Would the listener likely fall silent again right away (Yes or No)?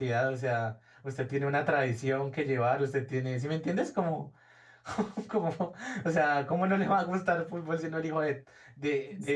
No